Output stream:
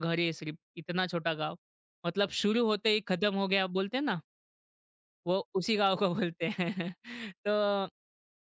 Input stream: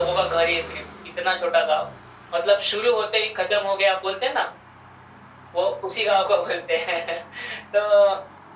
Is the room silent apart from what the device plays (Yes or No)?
Yes